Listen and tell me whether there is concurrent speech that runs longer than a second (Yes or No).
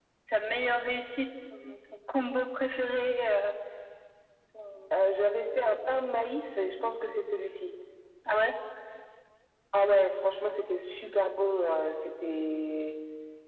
No